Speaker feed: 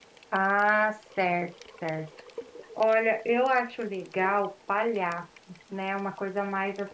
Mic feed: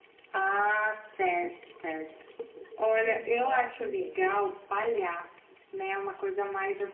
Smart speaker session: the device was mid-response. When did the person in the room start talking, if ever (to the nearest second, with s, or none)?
3 s